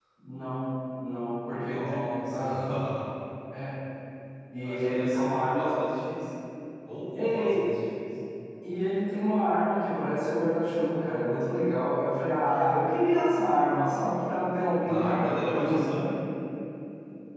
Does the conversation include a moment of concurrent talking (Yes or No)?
Yes